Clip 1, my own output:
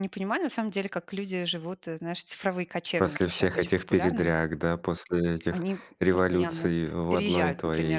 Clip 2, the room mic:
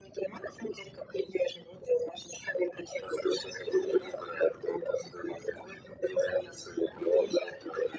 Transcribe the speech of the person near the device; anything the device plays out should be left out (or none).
none